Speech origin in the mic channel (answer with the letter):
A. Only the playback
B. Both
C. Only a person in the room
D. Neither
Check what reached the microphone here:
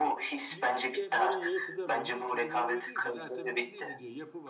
B